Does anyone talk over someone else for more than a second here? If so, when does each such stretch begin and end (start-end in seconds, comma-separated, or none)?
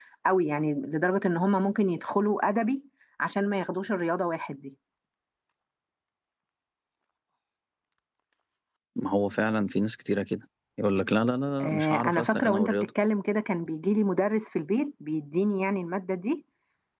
11.6-12.9